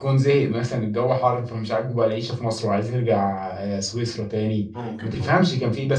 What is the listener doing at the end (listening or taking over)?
listening